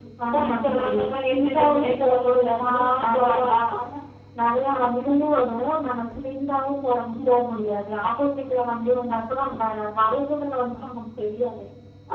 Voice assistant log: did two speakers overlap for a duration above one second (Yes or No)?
Yes